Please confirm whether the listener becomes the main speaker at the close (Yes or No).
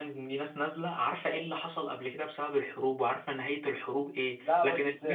No